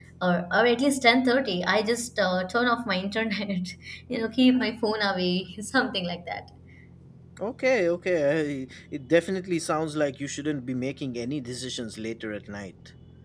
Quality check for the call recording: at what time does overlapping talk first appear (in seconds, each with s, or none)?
none